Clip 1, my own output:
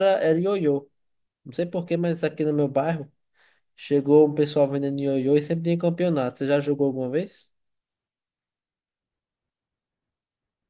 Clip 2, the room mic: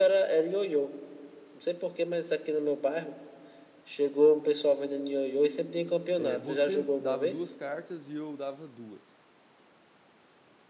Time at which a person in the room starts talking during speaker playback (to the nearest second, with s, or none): 6 s